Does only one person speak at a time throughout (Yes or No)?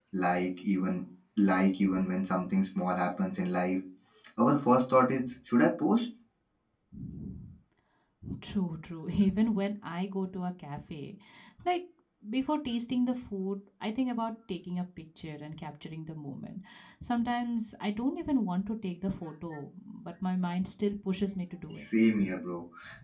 Yes